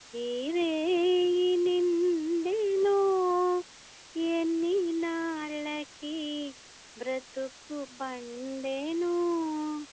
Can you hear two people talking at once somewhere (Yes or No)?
No